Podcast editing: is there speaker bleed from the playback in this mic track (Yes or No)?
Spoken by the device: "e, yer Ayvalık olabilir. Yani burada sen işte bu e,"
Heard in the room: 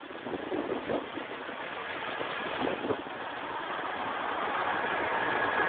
No